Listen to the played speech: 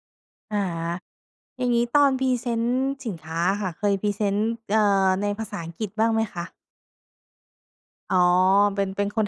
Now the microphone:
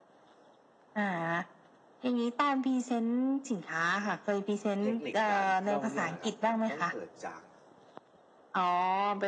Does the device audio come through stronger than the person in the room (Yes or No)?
Yes